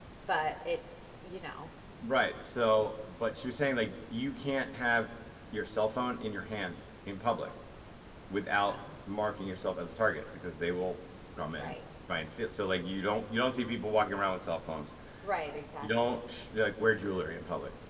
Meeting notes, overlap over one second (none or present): none